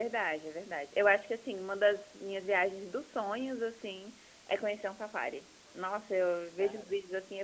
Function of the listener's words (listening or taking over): listening